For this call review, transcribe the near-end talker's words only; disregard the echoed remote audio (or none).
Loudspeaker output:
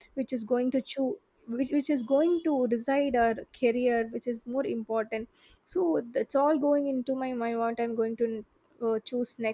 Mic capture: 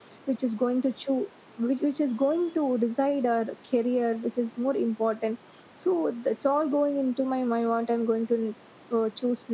none